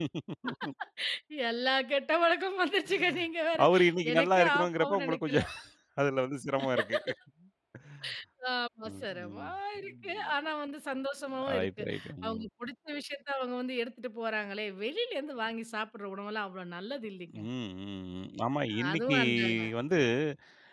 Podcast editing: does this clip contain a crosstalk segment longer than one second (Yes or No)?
Yes